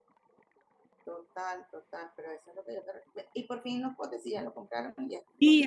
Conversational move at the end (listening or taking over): taking over